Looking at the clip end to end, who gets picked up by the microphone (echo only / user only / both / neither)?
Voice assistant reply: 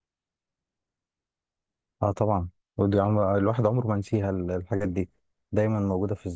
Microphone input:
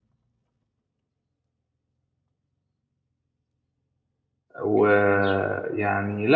user only